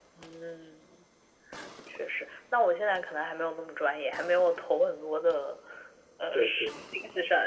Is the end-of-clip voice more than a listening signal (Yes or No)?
No